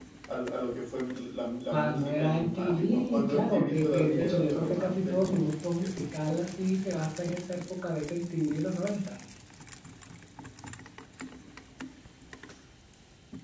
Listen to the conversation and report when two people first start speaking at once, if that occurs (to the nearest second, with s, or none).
2 s